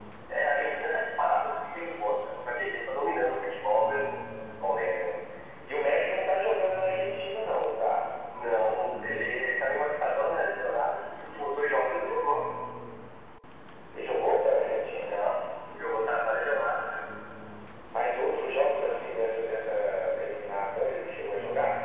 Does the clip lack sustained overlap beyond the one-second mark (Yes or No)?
Yes